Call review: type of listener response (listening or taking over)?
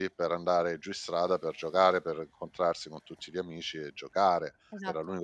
listening